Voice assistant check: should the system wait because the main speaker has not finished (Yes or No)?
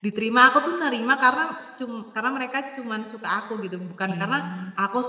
Yes